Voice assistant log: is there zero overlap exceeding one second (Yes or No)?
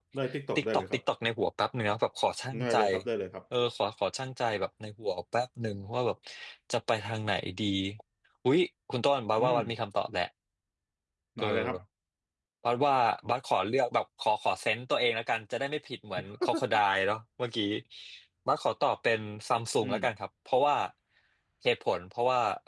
Yes